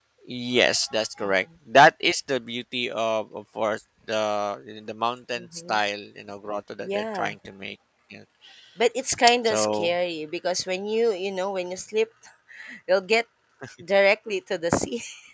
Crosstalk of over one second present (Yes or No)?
No